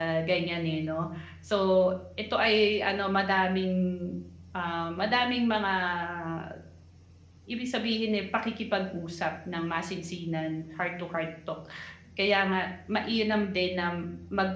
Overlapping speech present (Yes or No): No